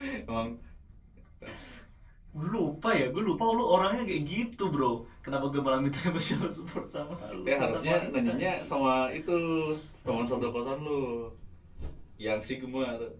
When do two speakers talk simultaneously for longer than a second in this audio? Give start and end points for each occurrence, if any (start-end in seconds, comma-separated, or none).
7.5-8.7